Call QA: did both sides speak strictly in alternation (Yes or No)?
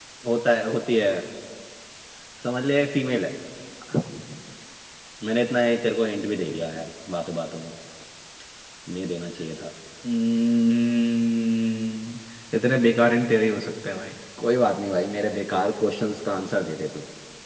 Yes